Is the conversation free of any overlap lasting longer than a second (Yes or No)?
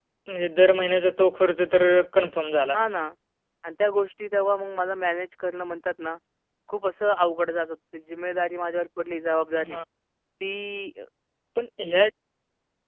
Yes